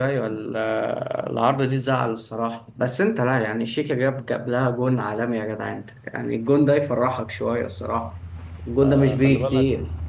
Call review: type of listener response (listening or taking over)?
taking over